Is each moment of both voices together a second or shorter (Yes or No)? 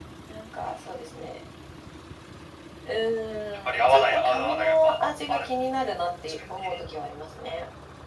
No